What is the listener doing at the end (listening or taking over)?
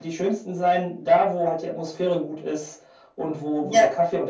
listening